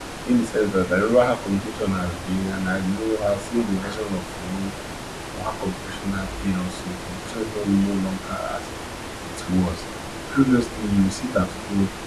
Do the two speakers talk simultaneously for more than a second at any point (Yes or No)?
No